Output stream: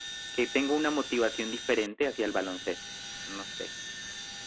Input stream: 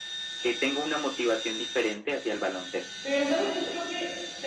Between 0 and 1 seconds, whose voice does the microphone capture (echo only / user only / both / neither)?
echo only